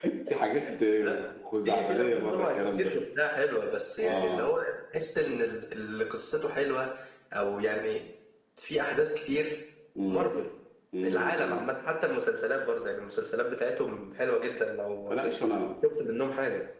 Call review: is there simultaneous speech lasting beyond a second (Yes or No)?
Yes